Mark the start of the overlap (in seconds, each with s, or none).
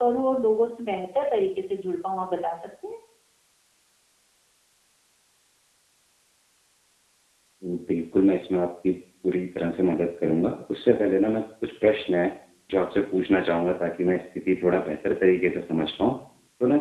none